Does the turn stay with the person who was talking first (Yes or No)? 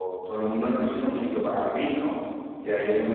Yes